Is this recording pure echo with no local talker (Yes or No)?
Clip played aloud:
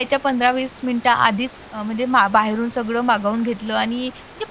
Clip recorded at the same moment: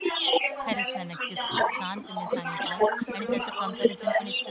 No